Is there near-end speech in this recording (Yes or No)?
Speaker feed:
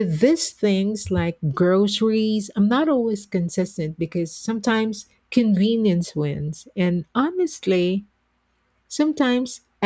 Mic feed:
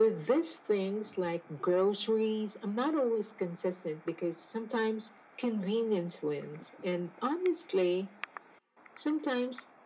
No